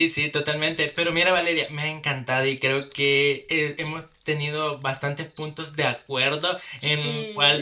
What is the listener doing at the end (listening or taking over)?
listening